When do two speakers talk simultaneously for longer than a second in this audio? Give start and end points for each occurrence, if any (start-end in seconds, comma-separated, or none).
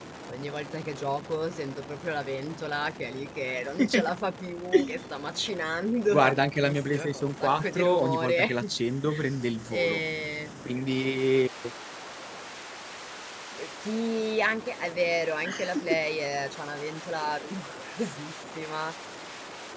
6.1-8.6